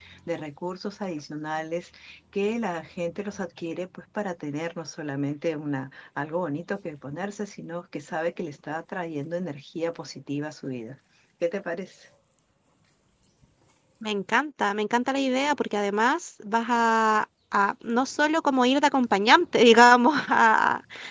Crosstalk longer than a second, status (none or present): none